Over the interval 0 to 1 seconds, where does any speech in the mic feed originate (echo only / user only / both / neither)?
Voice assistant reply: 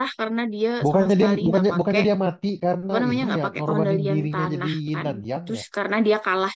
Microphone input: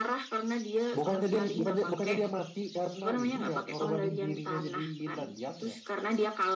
echo only